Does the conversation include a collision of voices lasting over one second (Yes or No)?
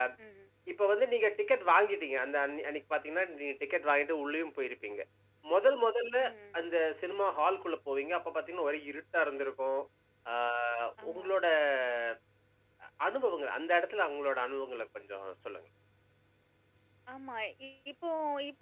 No